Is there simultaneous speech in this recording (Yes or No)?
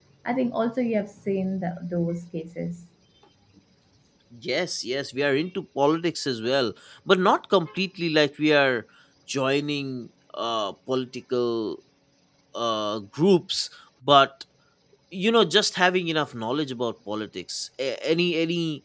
No